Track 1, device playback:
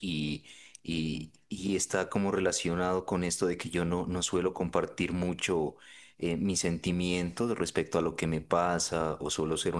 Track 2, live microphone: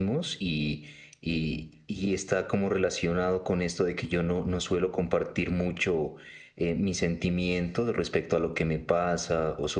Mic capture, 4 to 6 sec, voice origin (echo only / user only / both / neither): echo only